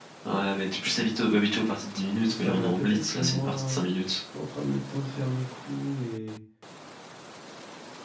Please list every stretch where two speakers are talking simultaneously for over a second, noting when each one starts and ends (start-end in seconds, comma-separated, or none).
2.3-3.8